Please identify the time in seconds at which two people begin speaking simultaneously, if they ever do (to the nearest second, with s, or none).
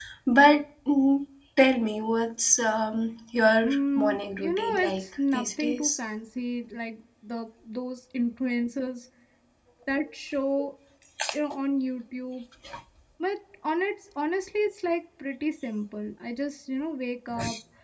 4 s